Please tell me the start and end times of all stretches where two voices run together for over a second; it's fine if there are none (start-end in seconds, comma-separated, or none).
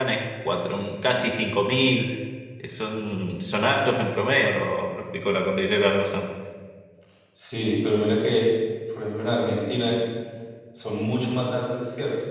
none